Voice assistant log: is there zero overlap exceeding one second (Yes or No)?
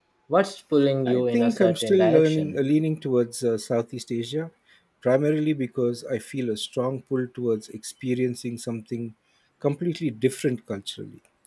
No